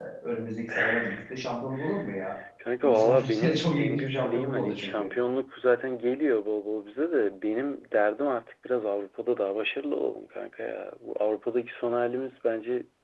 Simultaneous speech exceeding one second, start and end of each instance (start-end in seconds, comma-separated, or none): 2.8-5.1